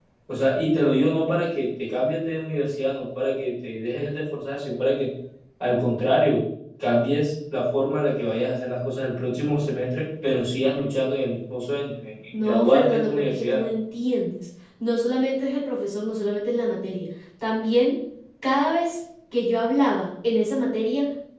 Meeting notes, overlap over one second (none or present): present